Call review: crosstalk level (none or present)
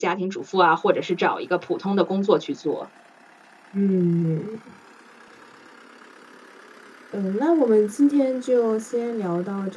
none